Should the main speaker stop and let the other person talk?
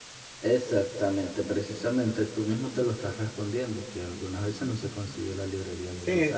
Yes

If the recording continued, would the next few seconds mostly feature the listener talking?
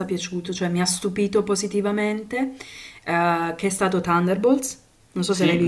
Yes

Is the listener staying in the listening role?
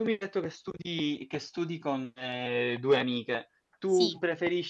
Yes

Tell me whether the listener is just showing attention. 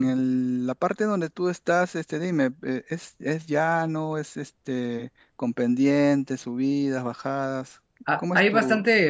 No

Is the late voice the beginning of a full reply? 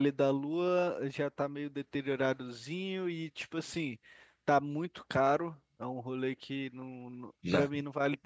No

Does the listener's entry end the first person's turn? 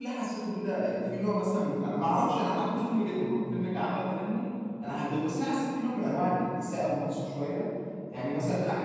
No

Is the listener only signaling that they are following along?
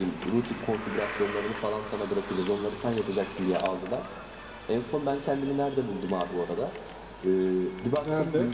Yes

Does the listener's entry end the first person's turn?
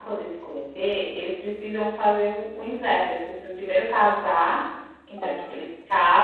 No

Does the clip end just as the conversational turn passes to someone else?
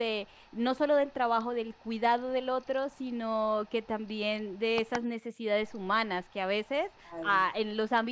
No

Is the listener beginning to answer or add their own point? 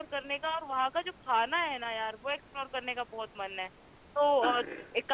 No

